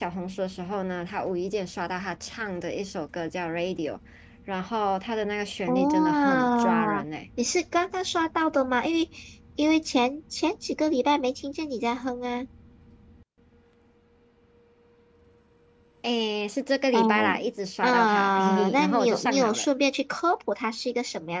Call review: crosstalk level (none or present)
present